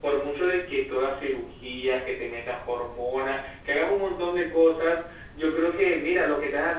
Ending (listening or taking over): listening